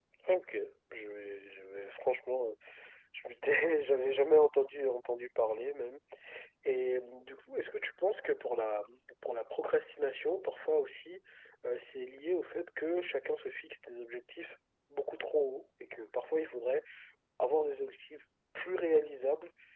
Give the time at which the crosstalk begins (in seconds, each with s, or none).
none